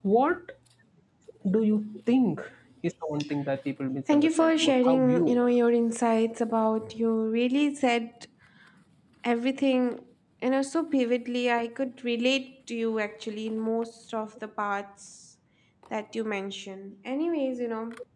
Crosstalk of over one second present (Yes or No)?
Yes